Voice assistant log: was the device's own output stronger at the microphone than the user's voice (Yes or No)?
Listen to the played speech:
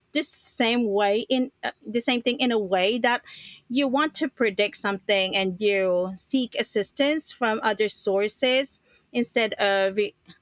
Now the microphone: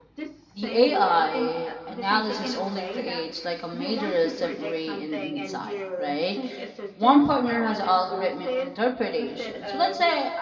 No